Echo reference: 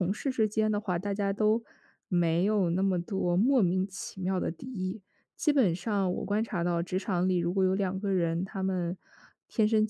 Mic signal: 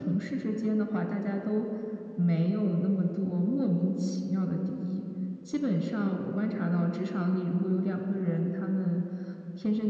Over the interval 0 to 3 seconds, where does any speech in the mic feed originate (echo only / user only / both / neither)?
echo only